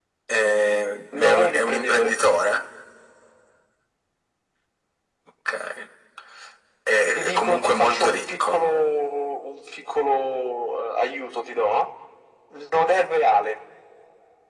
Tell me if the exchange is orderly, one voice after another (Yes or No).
No